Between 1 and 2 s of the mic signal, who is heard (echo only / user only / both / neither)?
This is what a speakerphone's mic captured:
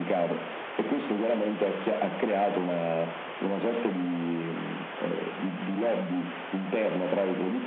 echo only